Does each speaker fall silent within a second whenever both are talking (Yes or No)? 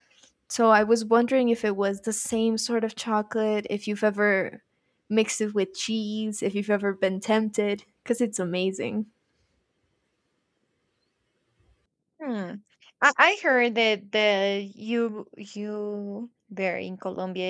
Yes